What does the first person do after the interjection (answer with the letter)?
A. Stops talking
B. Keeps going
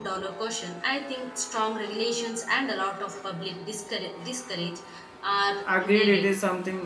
A